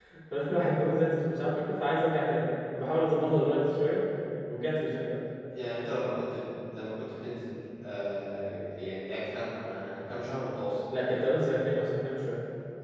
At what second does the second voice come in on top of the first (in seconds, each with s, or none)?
none